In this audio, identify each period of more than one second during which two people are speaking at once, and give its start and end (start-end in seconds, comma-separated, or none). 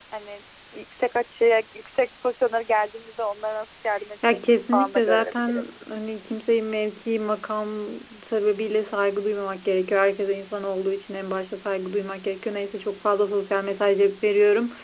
4.3-5.6